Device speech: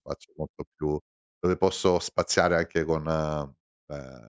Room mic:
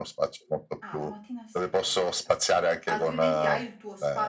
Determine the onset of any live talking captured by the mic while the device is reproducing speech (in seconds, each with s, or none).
0.8 s